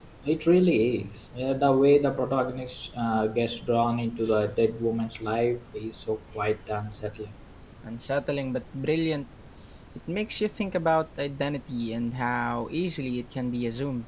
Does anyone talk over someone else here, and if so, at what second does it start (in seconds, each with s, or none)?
none